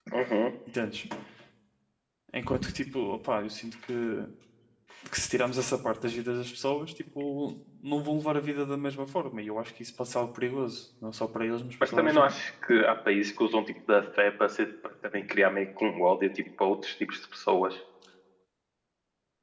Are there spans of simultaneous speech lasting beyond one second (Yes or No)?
No